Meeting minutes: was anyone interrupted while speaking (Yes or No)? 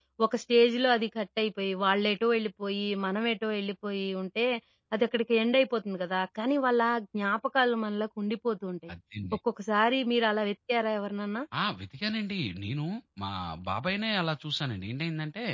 No